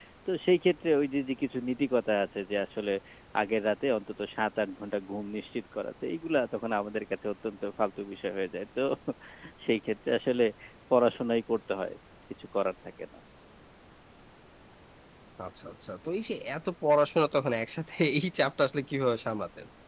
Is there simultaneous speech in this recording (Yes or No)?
No